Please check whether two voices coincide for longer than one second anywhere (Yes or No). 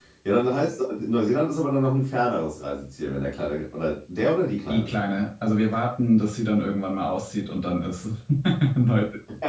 No